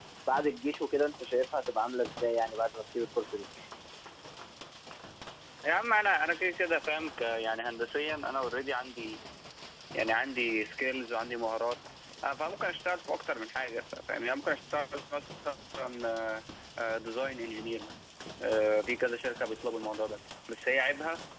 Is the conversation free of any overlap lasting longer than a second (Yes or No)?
Yes